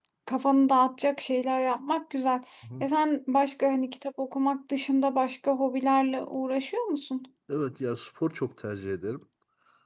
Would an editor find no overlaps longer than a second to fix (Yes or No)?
Yes